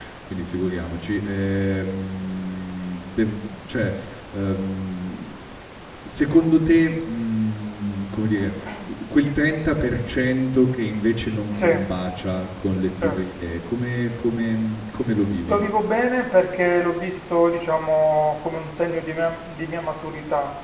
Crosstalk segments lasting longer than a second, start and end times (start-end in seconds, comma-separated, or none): none